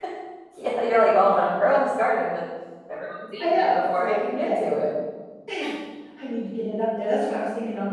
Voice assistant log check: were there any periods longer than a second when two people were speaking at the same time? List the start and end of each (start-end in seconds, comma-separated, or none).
3.4-4.8